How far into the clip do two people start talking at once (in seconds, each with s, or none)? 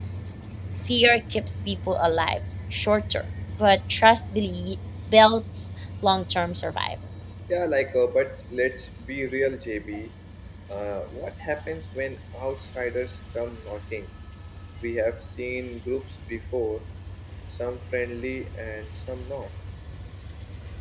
none